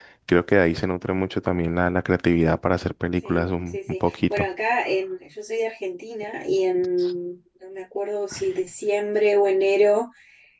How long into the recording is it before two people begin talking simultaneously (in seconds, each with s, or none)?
3.2 s